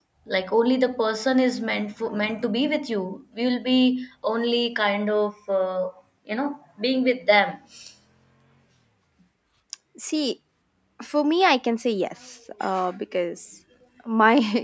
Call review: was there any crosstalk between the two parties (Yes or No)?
No